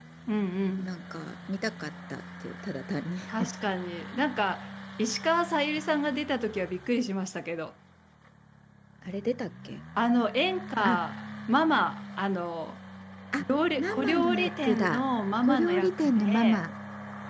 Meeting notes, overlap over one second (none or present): present